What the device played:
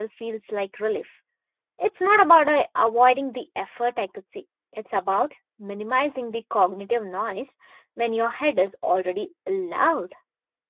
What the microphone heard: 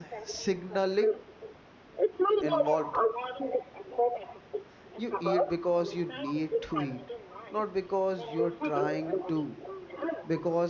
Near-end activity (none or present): present